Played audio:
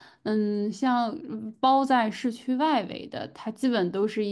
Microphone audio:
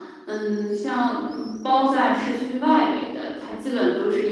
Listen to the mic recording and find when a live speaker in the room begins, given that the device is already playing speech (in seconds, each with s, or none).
none